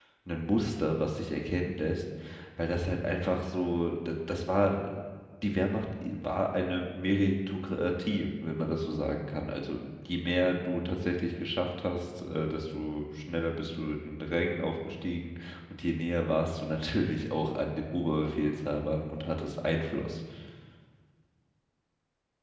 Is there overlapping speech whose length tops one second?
No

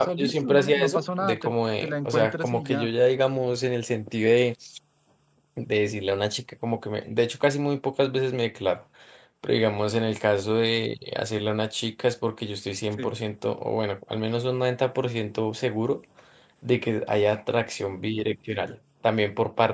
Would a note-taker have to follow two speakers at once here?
Yes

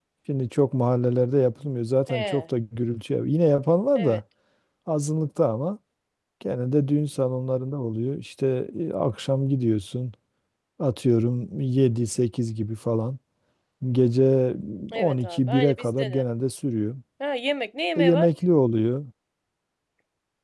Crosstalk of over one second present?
Yes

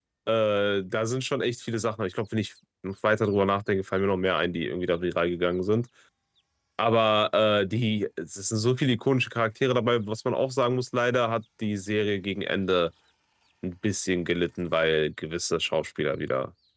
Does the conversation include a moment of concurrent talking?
No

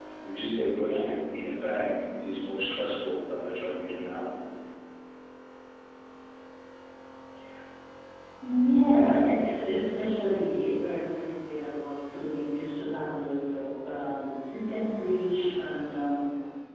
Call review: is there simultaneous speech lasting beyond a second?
No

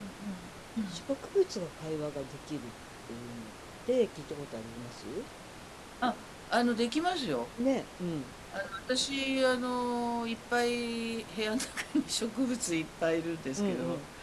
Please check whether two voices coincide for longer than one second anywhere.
No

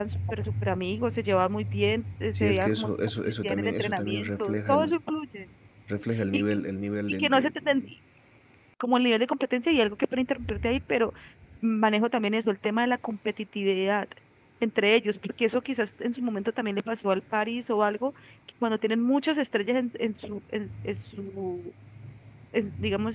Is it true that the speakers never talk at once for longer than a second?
No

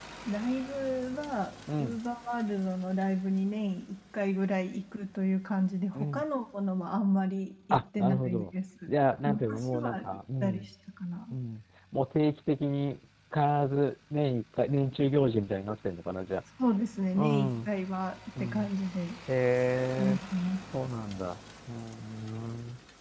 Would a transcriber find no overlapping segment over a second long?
No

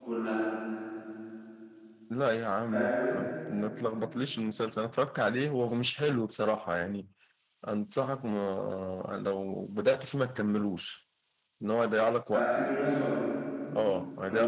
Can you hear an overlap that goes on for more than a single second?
No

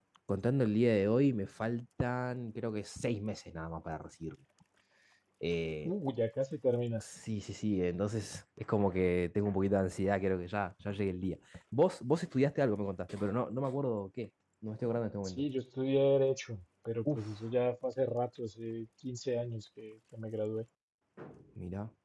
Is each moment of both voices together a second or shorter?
Yes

